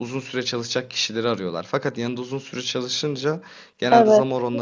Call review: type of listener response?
listening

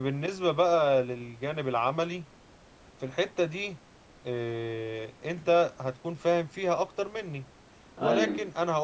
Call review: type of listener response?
listening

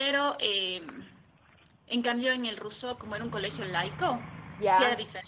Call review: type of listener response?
listening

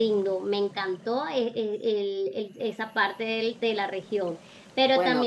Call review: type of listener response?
listening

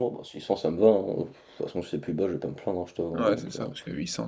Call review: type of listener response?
taking over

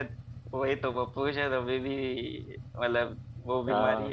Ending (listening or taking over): taking over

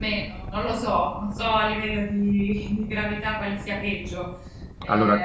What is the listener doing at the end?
taking over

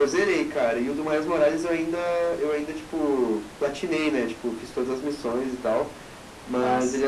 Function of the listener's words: listening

